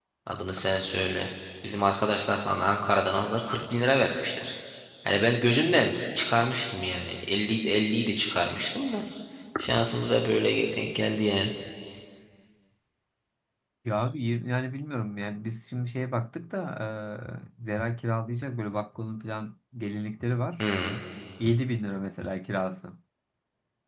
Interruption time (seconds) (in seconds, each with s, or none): none